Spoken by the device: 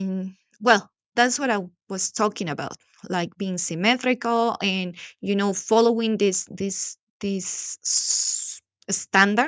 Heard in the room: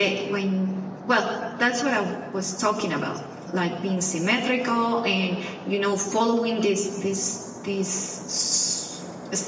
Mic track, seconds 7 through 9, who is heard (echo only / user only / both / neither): echo only